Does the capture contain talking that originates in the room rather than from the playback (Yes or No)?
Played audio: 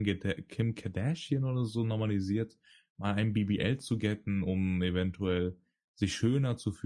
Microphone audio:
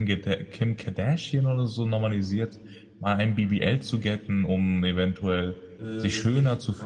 Yes